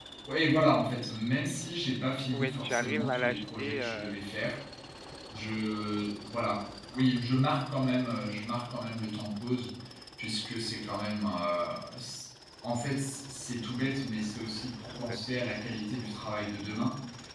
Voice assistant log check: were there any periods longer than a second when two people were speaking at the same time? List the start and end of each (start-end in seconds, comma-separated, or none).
2.3-4.2